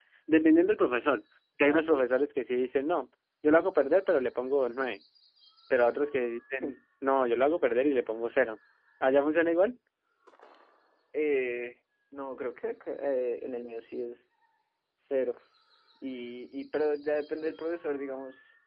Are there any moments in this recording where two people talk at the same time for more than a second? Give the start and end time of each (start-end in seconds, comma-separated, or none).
none